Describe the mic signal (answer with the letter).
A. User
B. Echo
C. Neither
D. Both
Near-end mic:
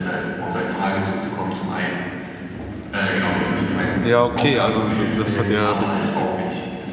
D